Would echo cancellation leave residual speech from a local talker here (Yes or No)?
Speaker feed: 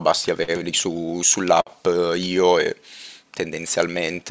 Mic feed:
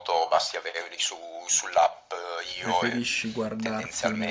Yes